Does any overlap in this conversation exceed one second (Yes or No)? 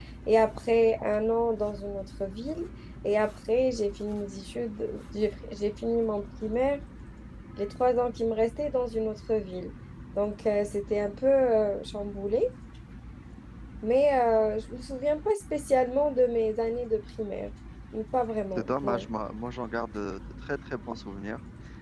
No